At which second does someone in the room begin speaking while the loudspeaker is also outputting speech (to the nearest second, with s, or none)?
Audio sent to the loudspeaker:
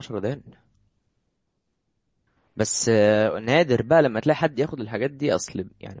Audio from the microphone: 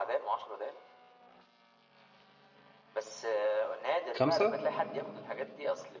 4 s